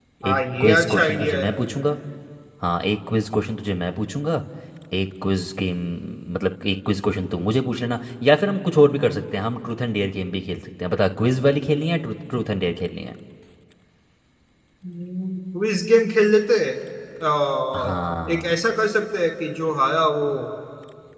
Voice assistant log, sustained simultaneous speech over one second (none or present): present